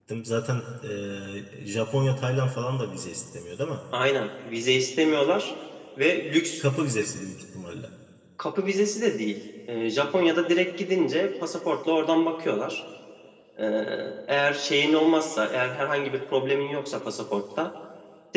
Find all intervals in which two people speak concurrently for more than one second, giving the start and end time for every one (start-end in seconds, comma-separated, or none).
none